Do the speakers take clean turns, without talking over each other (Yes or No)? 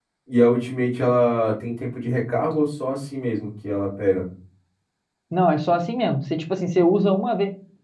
Yes